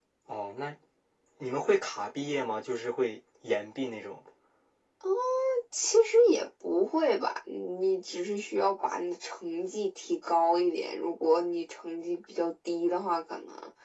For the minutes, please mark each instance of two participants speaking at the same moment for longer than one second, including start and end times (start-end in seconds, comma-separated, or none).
none